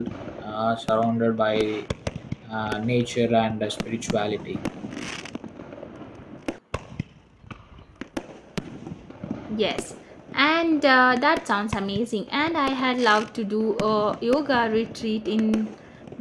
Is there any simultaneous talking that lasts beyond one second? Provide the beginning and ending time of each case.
none

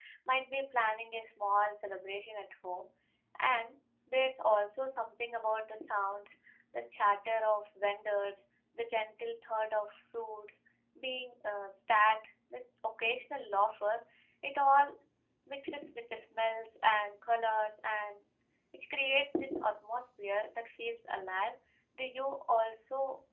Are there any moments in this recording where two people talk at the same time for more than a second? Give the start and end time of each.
none

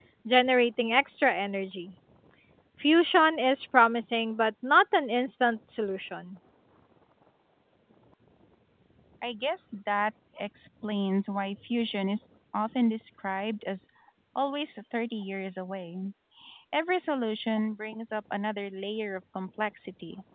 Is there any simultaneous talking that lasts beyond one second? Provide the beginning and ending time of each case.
none

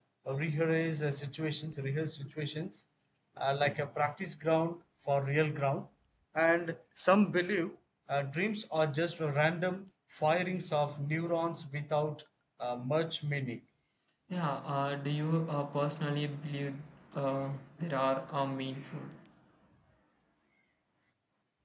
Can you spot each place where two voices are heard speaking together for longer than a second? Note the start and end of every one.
none

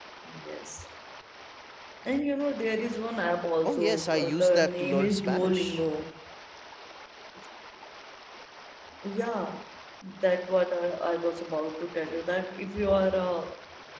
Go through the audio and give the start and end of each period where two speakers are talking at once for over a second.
3.6-5.8

